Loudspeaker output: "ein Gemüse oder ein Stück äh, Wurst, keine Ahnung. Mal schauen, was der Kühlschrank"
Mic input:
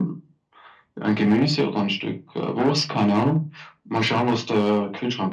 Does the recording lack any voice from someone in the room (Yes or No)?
Yes